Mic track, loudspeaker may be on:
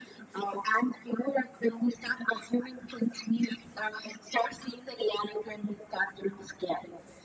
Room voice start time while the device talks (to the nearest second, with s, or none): none